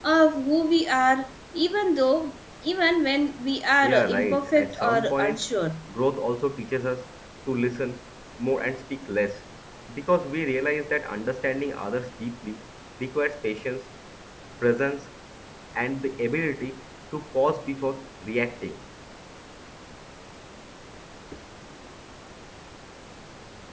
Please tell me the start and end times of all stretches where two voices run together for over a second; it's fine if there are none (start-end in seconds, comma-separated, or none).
3.8-5.4